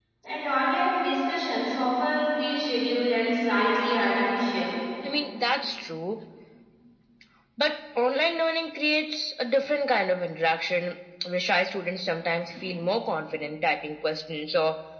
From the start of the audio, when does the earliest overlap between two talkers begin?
none

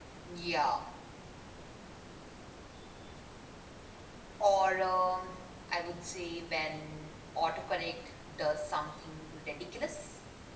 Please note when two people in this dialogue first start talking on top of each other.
none

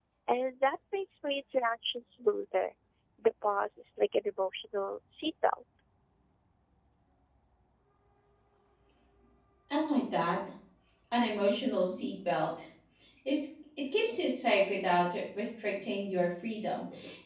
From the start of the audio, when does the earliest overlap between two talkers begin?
none

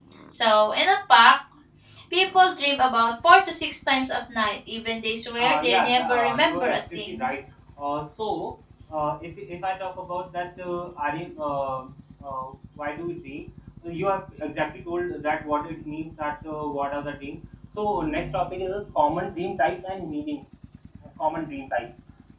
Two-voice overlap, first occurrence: 5.4 s

